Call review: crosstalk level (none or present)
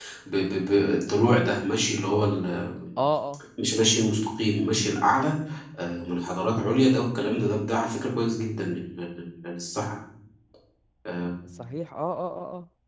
none